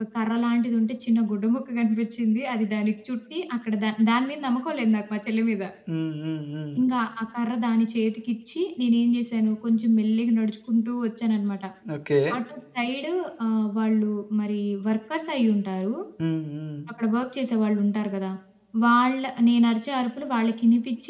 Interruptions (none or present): none